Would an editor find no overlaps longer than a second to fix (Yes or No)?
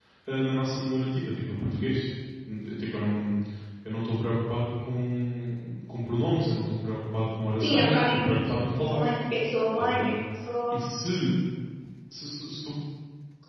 No